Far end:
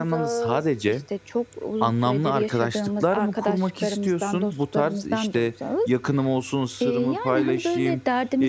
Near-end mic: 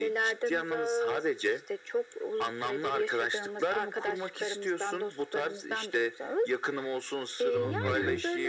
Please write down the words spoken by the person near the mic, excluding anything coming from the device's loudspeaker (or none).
Anladım.